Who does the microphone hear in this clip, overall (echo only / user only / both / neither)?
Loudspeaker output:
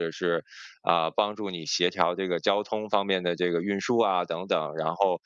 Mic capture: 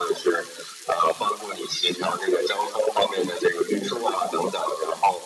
echo only